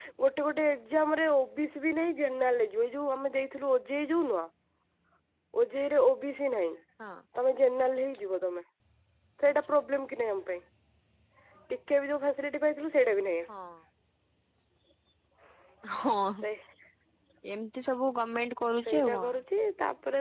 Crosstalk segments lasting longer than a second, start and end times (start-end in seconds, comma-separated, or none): none